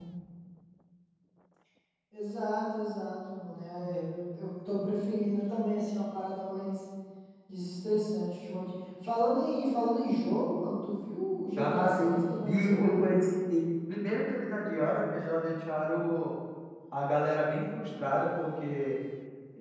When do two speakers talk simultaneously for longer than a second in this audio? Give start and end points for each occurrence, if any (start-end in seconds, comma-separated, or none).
11.6-12.8